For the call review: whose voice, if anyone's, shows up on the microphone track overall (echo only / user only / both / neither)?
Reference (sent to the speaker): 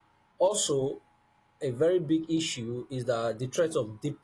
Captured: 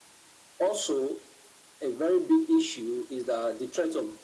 echo only